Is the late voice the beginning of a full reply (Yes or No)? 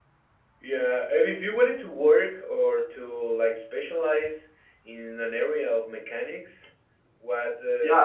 Yes